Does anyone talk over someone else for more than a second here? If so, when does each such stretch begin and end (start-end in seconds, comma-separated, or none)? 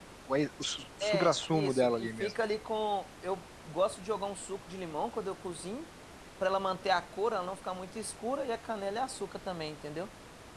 1.0-2.3